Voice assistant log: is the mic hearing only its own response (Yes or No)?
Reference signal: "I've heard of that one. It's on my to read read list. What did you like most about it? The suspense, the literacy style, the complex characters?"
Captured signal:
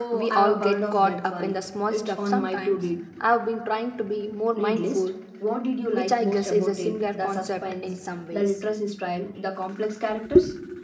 No